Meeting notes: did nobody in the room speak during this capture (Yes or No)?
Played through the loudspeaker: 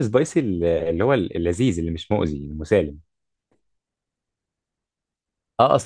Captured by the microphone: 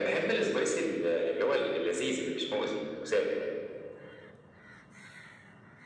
Yes